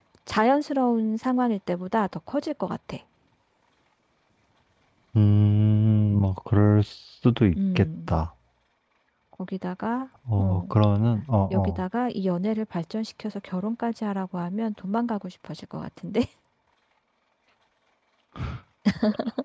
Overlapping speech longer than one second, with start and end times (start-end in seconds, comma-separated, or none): none